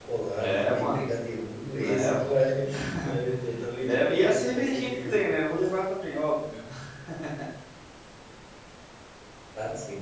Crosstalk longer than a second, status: present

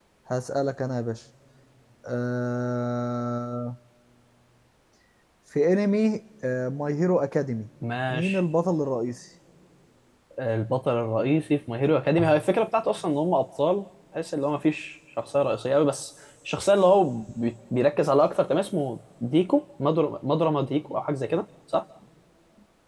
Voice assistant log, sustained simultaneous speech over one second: none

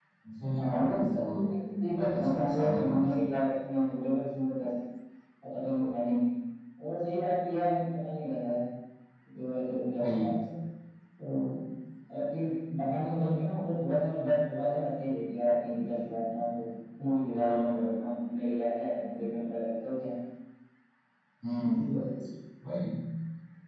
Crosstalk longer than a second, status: present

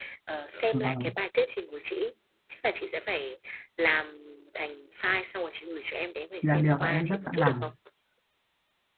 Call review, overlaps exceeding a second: present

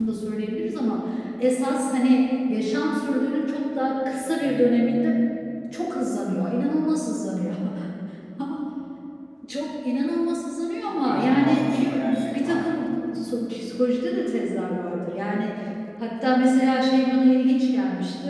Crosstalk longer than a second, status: present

